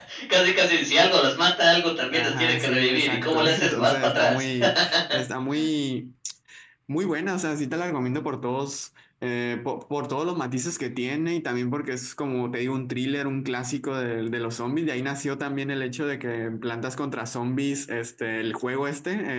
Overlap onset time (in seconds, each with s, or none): 2.1 s